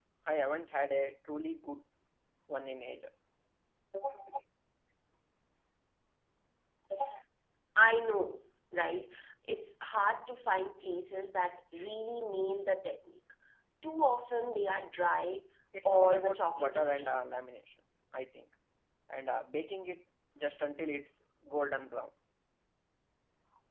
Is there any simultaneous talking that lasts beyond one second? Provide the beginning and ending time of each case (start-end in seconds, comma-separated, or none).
15.8-17.2